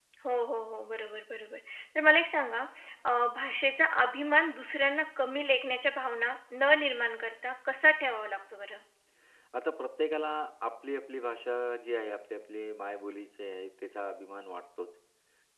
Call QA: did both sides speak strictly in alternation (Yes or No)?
Yes